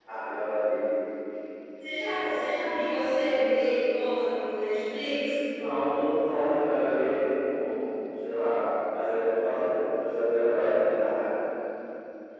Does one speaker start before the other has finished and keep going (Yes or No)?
No